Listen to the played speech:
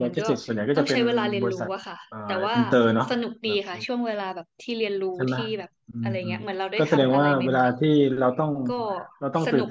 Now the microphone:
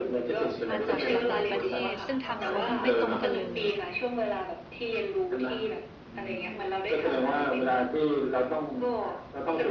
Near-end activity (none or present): present